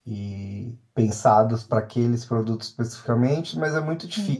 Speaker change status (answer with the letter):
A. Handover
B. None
B